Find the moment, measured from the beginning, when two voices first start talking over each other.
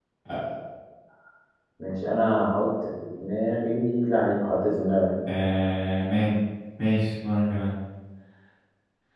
none

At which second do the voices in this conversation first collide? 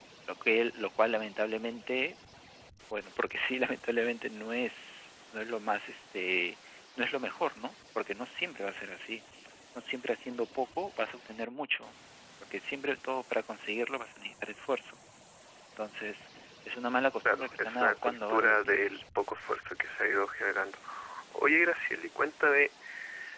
17 s

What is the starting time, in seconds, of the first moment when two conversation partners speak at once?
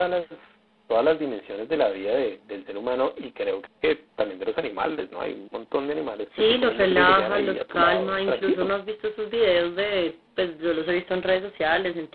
6 s

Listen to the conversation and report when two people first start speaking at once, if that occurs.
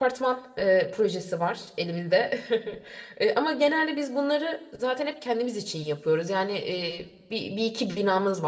none

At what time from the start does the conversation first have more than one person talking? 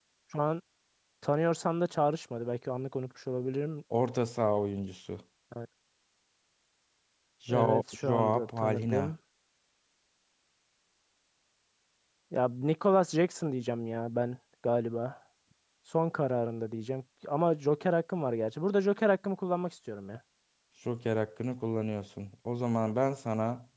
7 s

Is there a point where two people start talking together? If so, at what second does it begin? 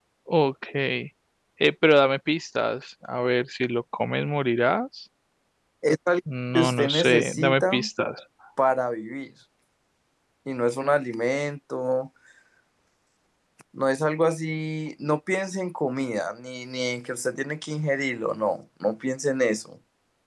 7 s

